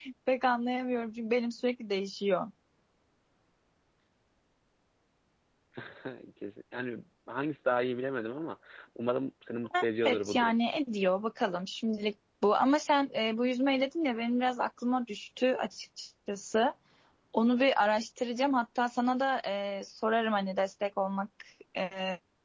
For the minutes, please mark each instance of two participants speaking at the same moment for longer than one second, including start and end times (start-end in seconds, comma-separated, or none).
none